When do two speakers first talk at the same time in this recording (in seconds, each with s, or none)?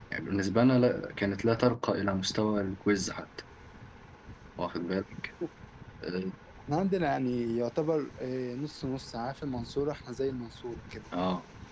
none